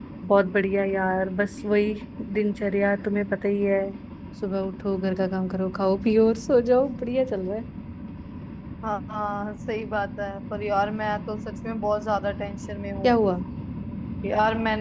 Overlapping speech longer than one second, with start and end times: none

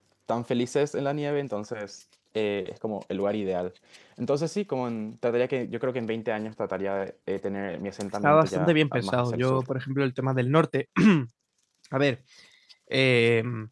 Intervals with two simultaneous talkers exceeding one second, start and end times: 8.2-9.6

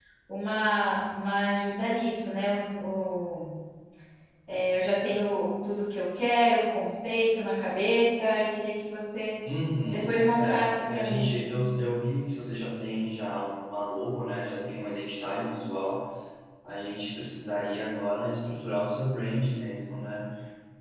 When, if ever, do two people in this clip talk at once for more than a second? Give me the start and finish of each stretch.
9.9-11.4

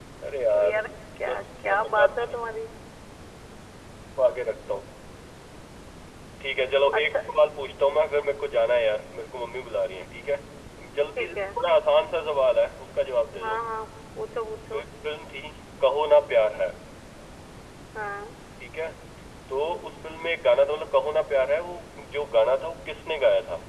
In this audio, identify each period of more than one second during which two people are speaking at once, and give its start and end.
1.2-2.5

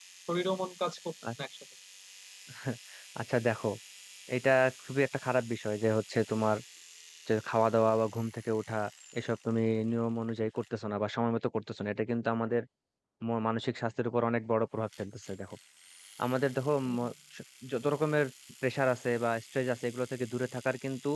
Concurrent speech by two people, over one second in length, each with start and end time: none

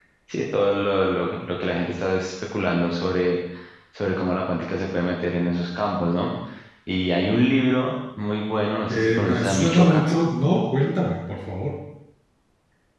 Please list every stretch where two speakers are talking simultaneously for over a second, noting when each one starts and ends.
8.9-10.2

